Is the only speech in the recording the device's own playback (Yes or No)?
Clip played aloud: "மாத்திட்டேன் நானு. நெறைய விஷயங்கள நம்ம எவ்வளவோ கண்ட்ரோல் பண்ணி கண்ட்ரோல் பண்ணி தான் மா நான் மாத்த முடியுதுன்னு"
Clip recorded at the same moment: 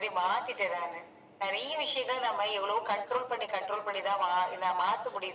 Yes